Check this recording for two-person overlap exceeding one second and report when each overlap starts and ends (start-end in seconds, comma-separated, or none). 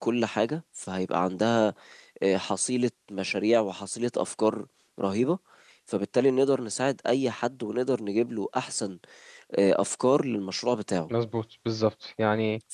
none